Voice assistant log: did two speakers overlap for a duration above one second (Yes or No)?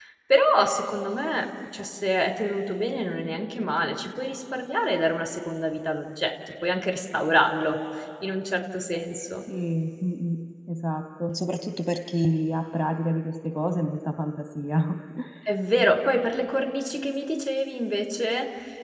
No